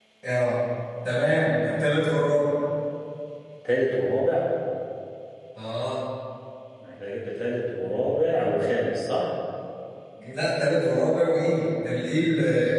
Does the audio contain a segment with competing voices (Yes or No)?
No